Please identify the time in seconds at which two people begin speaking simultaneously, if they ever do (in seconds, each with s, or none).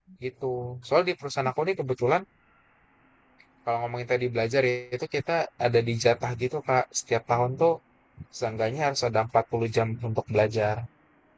none